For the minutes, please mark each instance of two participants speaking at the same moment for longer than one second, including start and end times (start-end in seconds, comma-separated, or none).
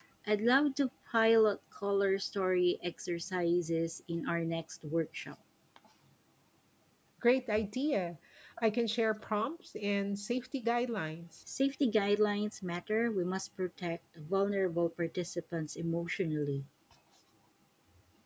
none